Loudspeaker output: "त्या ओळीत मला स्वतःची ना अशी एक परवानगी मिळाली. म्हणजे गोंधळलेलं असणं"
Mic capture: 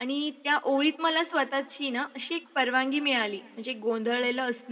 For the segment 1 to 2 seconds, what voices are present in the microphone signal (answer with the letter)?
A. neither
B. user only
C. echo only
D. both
C